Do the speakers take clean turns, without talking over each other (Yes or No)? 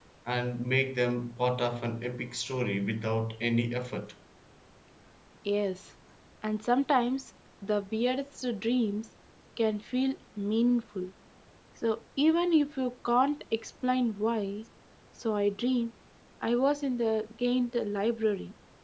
Yes